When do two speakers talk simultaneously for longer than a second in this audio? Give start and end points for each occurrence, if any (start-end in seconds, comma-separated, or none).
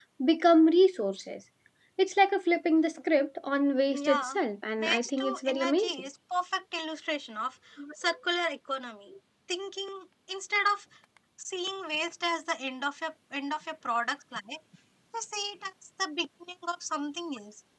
4.8-6.0